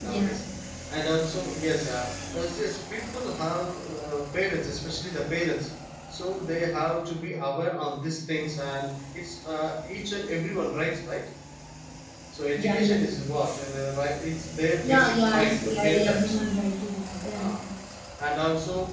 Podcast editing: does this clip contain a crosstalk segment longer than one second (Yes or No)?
Yes